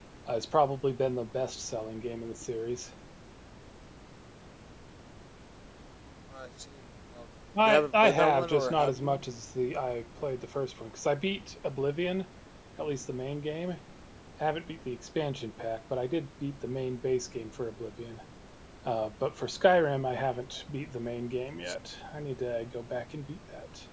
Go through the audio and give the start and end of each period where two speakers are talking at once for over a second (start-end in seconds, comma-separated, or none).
7.7-9.2